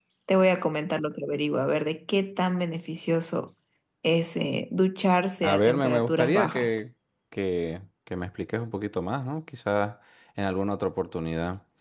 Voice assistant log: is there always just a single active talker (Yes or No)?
No